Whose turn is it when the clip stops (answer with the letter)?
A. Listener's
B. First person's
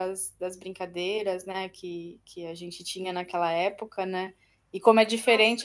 B